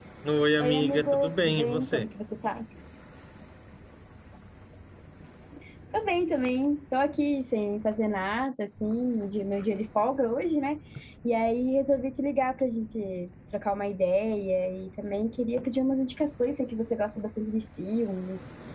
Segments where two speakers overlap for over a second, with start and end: 0.6-2.0

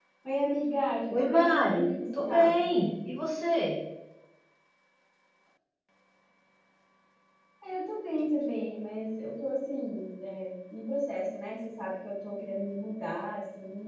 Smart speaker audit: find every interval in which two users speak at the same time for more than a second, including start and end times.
1.1-2.5

